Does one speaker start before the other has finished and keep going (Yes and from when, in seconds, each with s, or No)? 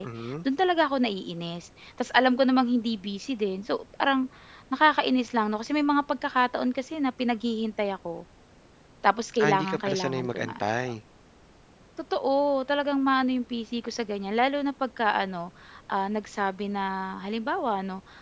Yes, from 9.4 s